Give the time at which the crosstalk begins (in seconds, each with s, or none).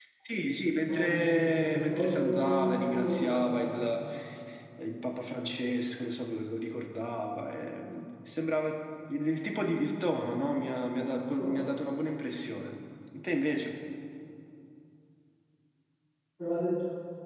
0.8 s